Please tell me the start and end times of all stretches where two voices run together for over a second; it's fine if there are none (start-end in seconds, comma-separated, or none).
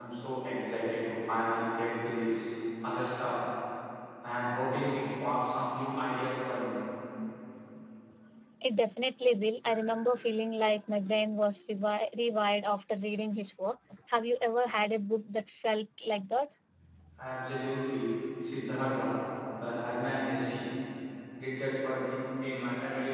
none